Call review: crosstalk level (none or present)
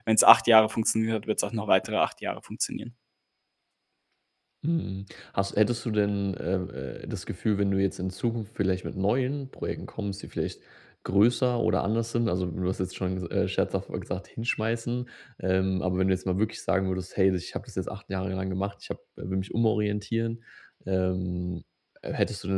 none